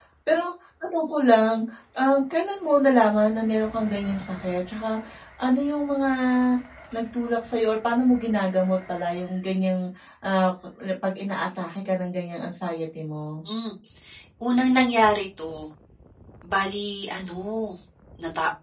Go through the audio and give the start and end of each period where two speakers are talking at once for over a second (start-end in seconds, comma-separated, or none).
none